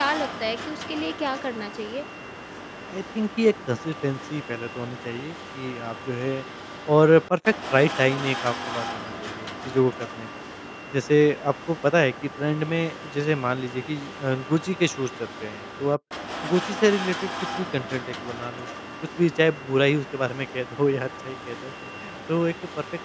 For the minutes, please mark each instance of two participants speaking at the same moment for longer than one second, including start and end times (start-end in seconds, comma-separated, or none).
none